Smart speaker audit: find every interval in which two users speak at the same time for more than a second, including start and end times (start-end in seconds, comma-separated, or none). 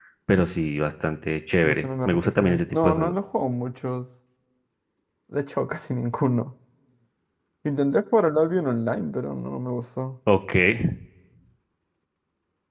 1.6-3.1